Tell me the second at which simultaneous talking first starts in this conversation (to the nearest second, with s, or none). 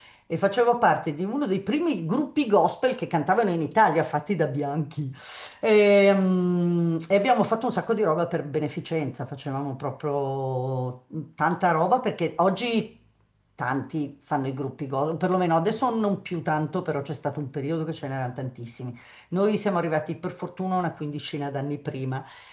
none